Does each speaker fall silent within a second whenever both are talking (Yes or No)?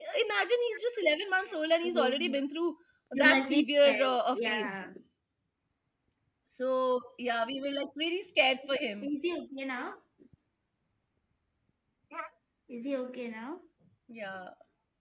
No